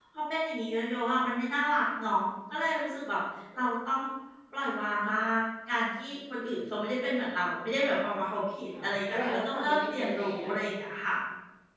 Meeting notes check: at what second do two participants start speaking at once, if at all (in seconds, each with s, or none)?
8.7 s